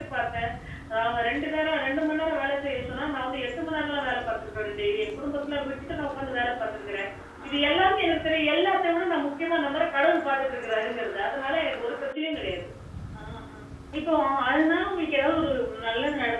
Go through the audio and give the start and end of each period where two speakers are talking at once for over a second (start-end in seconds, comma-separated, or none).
none